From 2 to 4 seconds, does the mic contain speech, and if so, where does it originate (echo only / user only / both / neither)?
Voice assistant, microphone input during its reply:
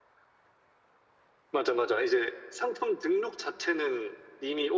echo only